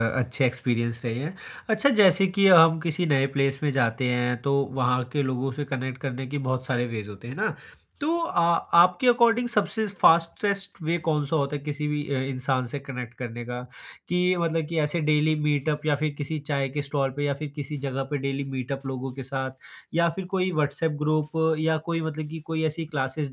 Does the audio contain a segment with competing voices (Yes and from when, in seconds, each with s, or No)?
No